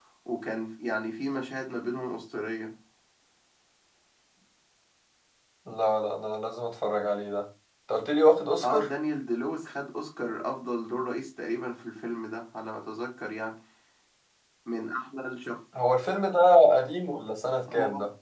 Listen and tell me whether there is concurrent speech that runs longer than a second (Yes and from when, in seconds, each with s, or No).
No